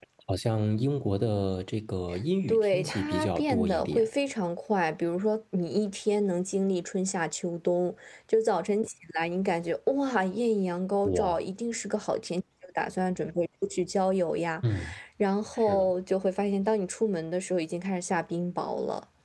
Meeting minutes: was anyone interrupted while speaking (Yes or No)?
Yes